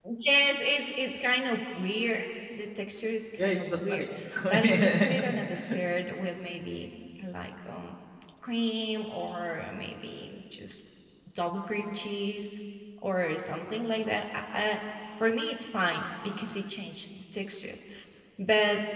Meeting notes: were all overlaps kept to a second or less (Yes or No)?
No